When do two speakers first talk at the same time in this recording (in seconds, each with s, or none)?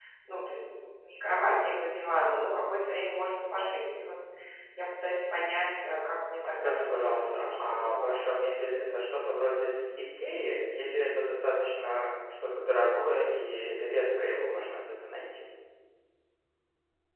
6.4 s